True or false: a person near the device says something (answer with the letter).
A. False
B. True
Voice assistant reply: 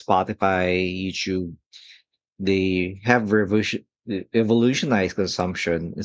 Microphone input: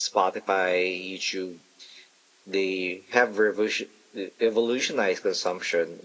A